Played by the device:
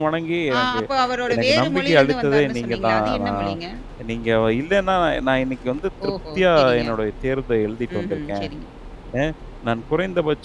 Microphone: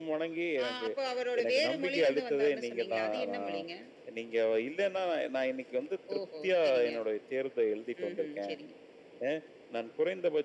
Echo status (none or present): present